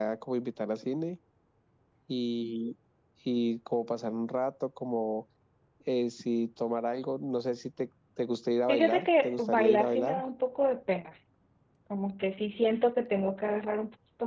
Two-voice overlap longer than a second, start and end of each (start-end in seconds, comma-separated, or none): 8.7-10.2